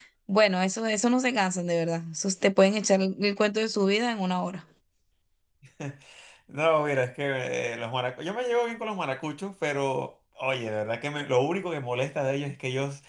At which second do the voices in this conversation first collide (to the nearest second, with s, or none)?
none